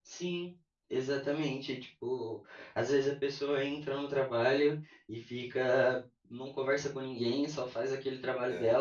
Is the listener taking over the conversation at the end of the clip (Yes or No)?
No